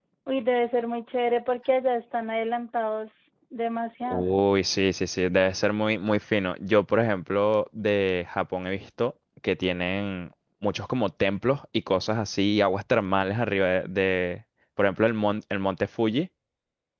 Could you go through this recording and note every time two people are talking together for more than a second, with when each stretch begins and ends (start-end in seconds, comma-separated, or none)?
none